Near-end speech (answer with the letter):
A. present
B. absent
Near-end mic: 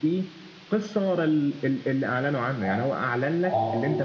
A